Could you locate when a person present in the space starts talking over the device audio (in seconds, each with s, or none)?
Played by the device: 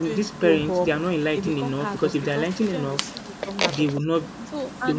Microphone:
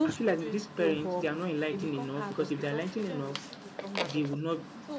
none